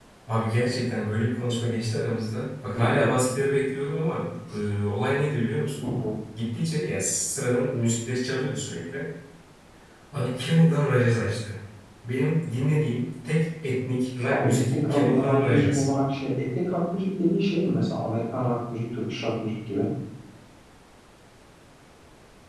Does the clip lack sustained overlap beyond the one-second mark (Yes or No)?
No